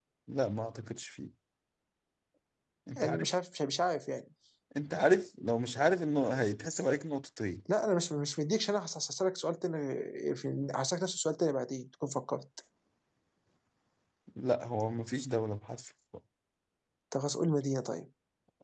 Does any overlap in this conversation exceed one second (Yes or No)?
No